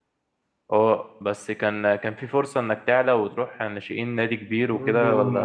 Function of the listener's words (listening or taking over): taking over